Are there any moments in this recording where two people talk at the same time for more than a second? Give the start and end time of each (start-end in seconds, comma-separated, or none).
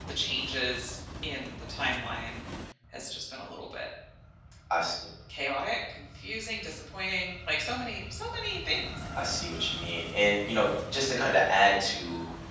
none